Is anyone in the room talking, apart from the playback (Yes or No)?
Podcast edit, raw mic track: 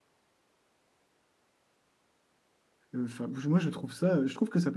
Yes